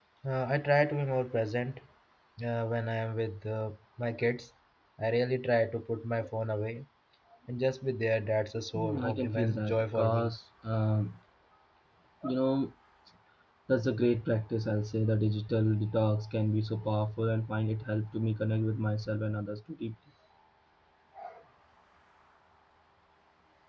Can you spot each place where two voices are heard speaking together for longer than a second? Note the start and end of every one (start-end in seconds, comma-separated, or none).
8.7-10.3